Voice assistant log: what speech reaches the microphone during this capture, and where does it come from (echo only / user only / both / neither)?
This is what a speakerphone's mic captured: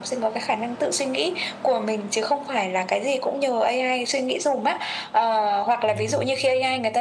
both